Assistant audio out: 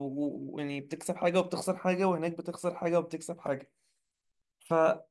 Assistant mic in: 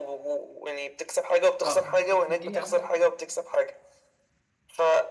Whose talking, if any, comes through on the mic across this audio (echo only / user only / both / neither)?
both